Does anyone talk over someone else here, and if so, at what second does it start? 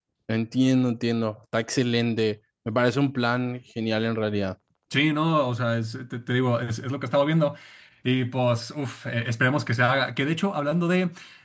none

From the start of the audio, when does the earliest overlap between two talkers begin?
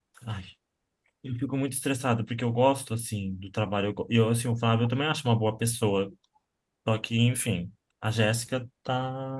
none

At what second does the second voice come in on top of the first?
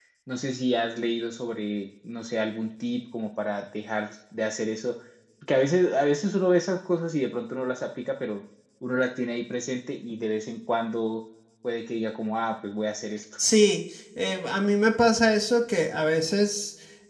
none

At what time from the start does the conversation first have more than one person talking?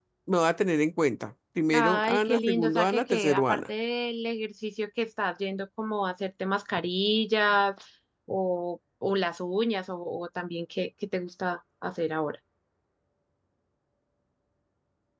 1.7 s

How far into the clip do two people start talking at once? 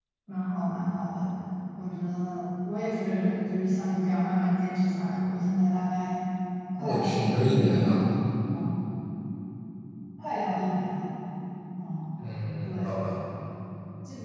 6.8 s

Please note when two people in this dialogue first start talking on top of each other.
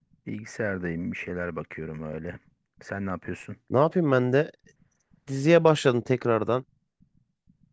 none

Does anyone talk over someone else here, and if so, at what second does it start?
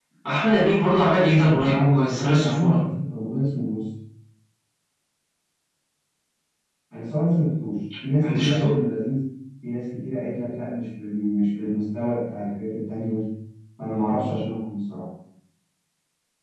1.4 s

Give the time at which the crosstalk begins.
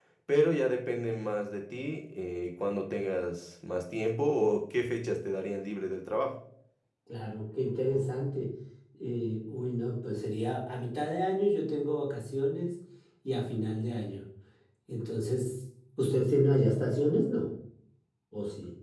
none

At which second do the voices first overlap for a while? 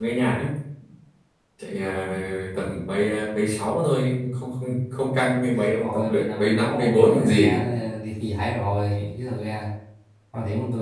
5.6 s

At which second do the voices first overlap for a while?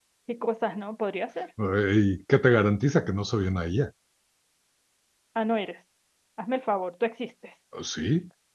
none

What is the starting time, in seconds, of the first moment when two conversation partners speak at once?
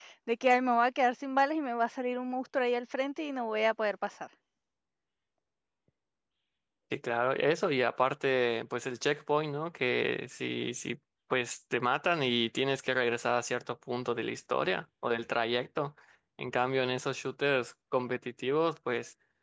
none

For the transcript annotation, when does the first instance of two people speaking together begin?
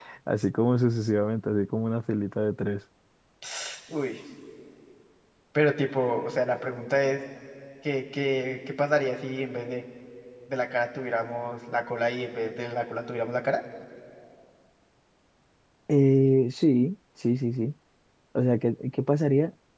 none

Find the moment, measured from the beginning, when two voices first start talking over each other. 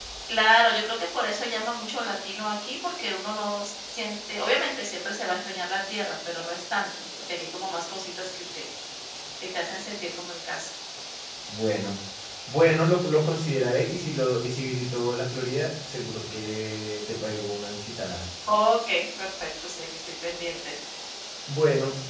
none

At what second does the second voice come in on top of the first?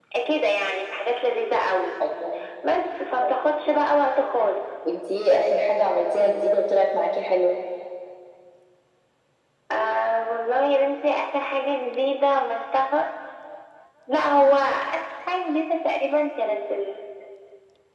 none

